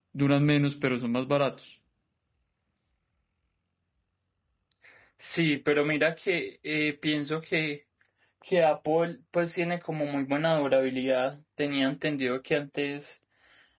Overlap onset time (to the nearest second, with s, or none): none